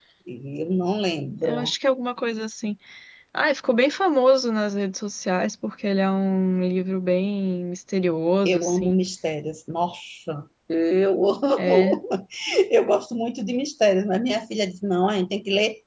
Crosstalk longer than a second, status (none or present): none